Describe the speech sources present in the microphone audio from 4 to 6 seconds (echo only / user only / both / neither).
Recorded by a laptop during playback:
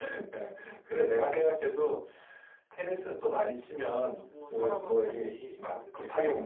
both